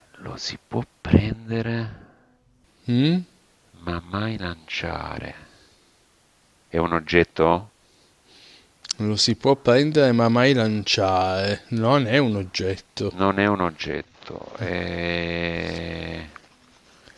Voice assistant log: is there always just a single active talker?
Yes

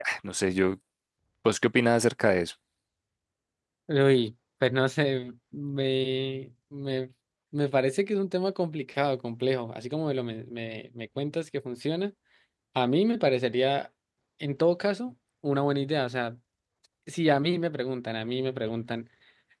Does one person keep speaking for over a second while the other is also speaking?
No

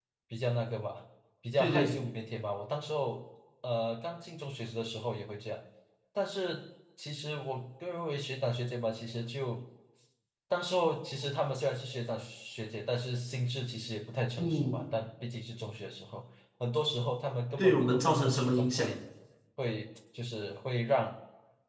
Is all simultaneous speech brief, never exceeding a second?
No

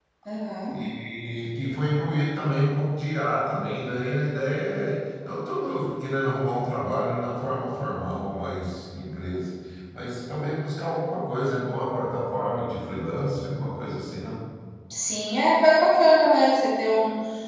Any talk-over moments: No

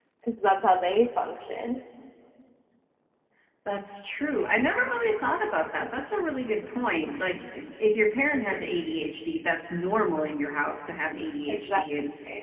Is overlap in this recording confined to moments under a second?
Yes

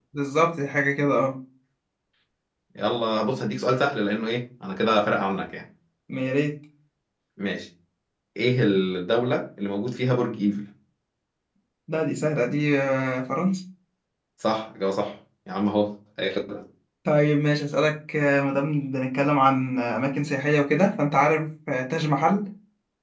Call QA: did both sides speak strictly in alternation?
Yes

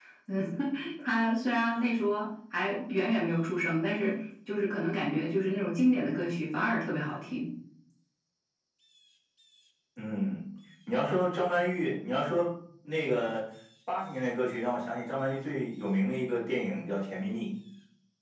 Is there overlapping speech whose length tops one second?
No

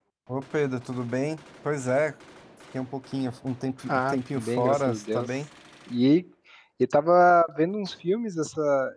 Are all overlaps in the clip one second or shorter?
No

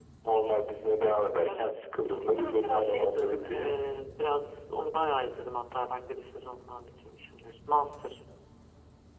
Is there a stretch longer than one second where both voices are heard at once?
Yes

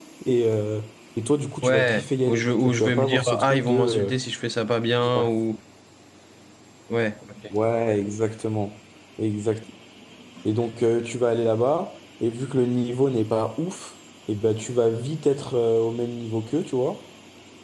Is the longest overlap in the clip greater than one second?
Yes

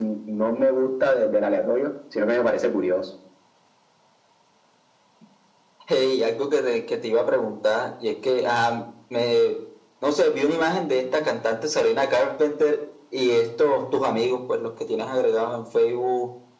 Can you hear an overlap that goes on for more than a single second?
No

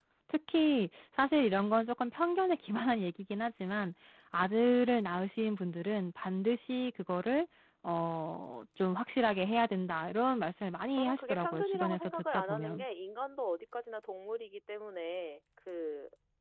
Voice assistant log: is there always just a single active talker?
No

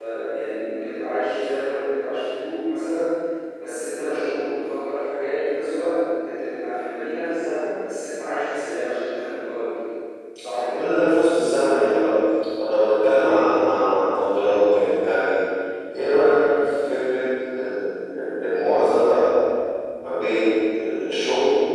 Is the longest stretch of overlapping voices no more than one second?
Yes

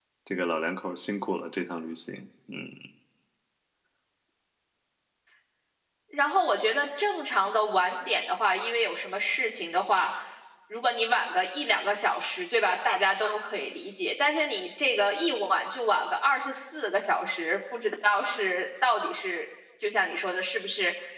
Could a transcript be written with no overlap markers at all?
Yes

